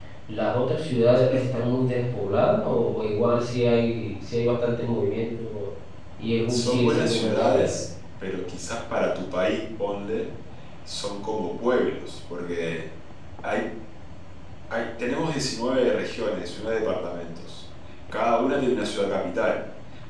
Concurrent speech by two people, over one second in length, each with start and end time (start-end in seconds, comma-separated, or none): 6.5-7.8